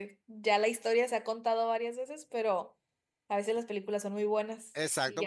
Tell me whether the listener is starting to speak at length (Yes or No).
Yes